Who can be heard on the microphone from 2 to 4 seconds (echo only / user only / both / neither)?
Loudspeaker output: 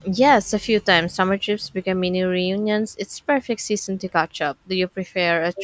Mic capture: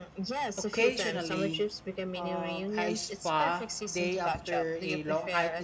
both